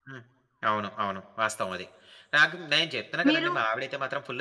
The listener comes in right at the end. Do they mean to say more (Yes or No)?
No